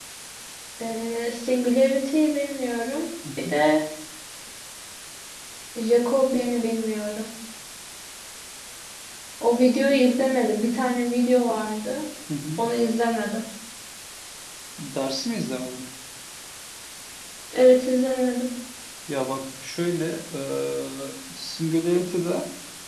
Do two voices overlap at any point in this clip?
No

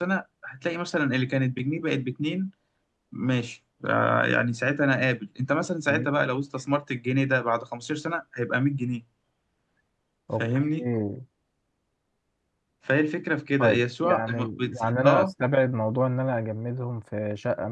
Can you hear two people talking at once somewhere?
Yes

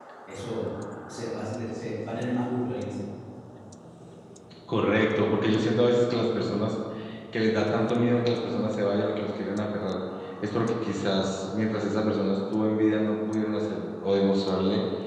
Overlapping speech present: No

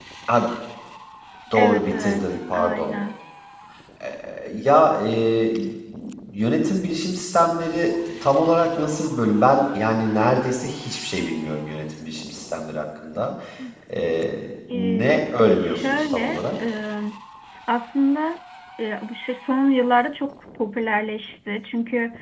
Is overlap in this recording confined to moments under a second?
No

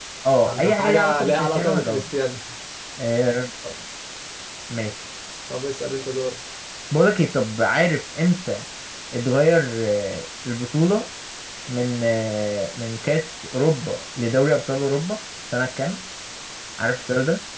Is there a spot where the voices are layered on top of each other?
Yes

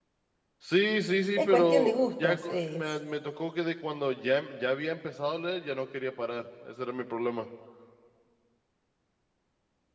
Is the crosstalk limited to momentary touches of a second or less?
No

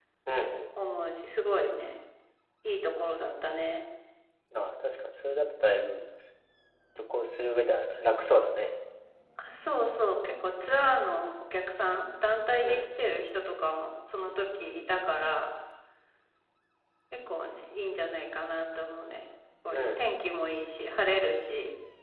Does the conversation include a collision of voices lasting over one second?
No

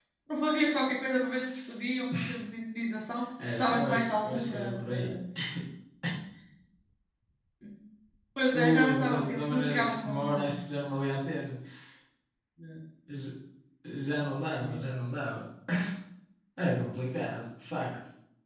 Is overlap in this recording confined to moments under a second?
No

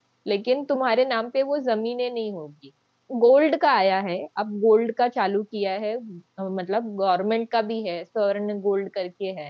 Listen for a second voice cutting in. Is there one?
No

